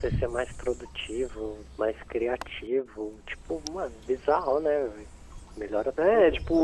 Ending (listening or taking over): taking over